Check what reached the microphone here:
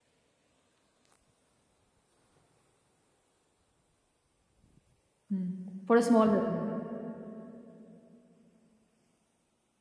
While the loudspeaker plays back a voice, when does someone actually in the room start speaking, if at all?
5.3 s

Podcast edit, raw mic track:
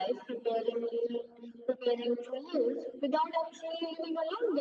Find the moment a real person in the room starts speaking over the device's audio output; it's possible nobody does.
none

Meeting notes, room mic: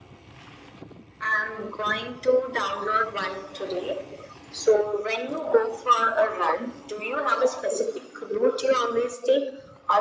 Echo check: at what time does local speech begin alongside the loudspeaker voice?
none

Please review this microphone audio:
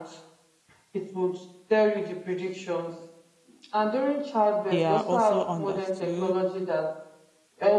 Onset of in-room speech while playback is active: 4.7 s

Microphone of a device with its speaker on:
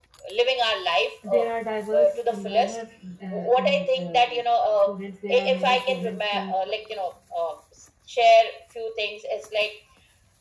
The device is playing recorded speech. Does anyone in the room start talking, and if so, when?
1.2 s

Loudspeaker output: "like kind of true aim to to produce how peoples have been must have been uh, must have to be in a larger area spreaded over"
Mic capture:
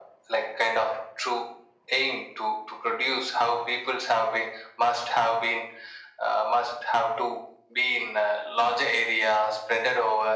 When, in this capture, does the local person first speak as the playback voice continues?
none

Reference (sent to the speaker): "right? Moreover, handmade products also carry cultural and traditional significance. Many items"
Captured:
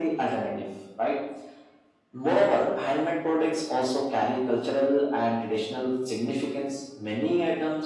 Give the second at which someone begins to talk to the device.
none

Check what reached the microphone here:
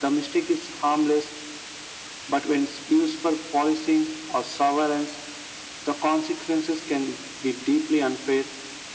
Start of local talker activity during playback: none

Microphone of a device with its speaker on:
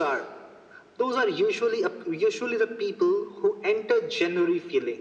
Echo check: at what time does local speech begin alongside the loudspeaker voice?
none

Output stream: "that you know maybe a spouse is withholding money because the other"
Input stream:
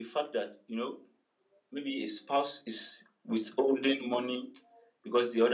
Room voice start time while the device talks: none

